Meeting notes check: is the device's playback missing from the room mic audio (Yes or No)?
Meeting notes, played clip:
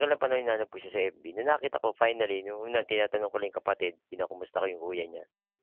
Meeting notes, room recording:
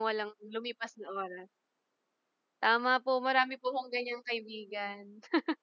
Yes